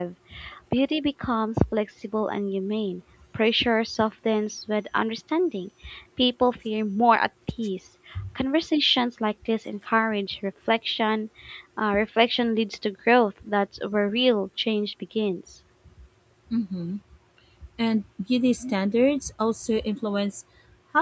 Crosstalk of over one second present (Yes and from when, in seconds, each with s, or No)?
No